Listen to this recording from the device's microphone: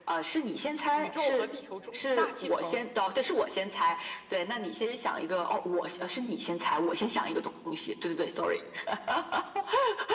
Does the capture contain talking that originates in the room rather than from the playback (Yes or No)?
Yes